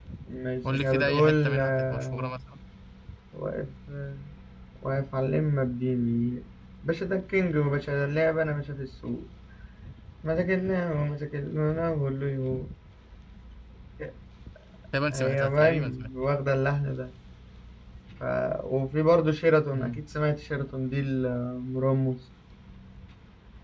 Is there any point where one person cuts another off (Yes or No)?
Yes